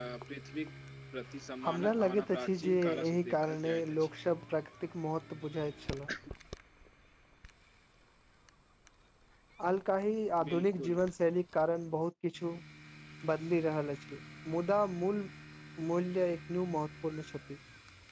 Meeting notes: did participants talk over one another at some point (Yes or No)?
Yes